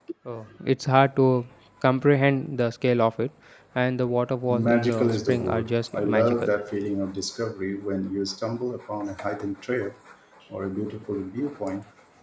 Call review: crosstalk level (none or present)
present